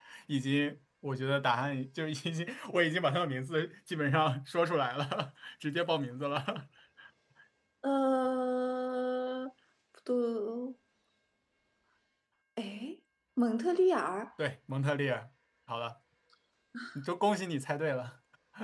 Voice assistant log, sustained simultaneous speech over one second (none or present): none